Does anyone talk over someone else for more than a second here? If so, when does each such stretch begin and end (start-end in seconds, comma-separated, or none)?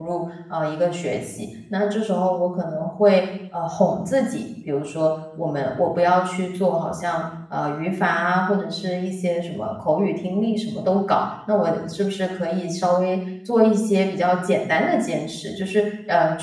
none